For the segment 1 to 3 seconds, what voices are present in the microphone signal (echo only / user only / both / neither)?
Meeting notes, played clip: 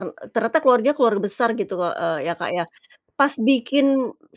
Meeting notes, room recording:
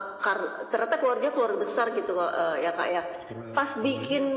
echo only